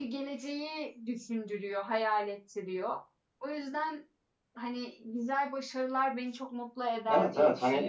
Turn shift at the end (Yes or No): Yes